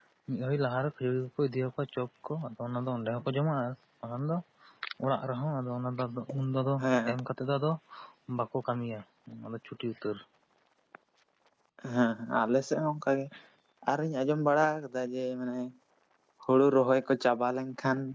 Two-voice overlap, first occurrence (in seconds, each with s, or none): none